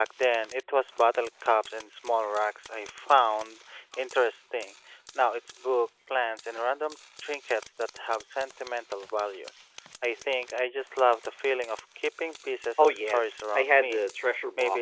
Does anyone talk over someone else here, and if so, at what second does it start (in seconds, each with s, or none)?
12.8 s